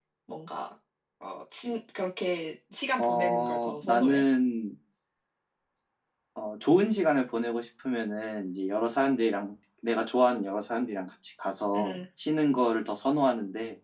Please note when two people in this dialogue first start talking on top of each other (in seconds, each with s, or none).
3.0 s